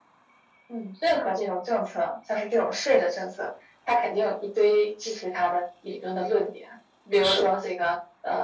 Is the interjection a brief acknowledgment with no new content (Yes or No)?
Yes